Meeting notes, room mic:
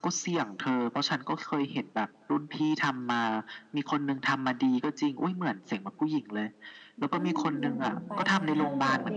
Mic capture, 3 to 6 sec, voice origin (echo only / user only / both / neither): echo only